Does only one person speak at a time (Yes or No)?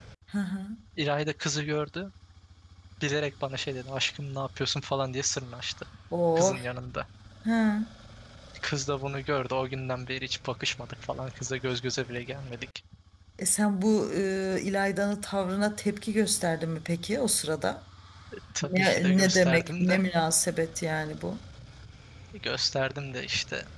No